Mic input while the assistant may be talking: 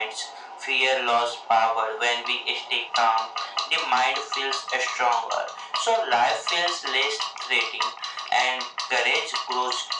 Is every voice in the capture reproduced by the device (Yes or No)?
Yes